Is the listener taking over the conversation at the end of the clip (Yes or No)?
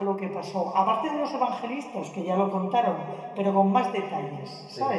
Yes